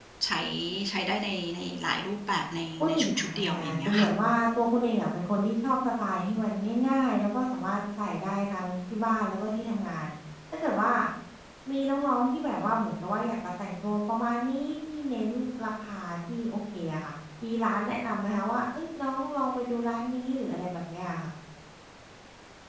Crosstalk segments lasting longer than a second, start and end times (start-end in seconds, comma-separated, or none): 2.8-4.1